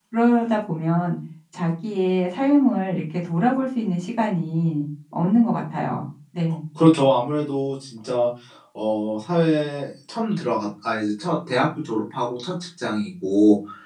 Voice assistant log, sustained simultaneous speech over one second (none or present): none